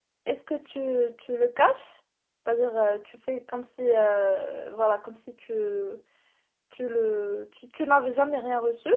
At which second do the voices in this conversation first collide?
none

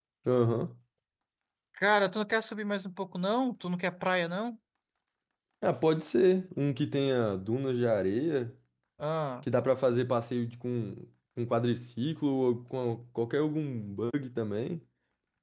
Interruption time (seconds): none

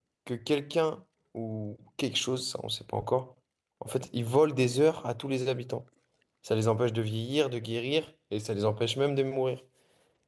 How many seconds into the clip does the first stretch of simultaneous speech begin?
none

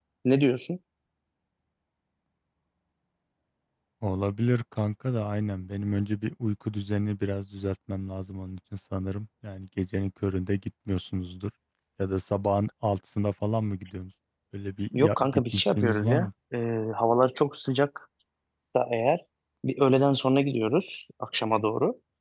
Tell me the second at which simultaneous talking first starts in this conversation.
15 s

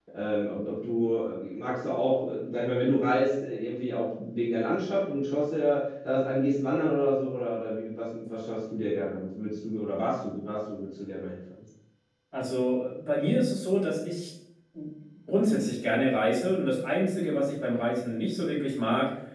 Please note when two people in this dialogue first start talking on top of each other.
none

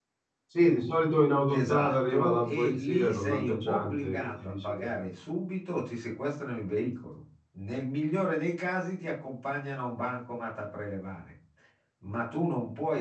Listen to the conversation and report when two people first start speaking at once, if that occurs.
1 s

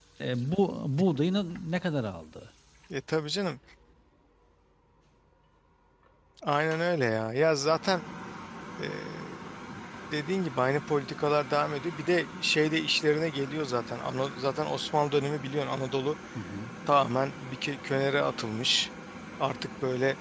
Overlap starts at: none

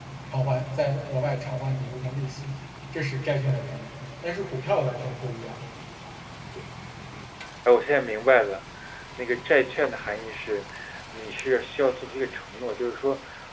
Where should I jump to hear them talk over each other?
none

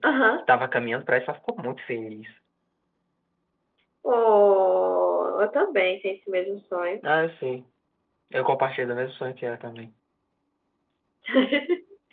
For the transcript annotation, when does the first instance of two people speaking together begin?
none

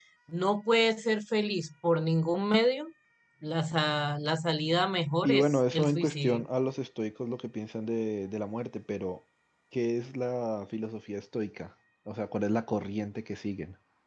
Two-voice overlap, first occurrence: 5 s

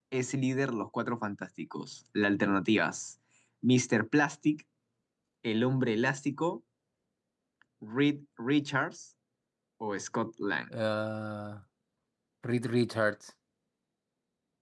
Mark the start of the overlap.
none

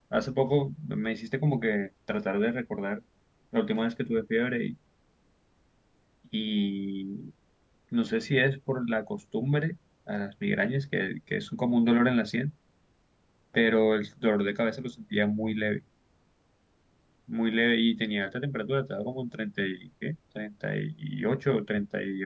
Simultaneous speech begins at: none

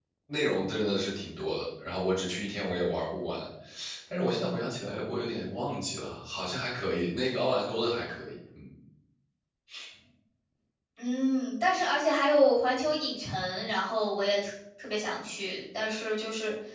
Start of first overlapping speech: none

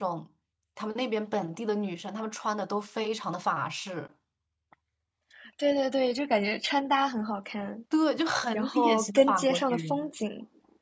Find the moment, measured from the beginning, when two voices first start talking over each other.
9 s

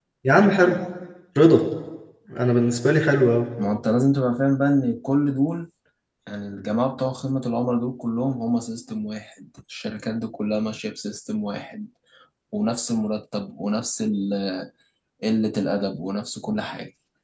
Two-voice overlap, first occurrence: none

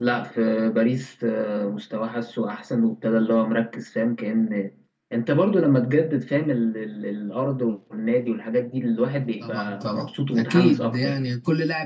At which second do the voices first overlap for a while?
9 s

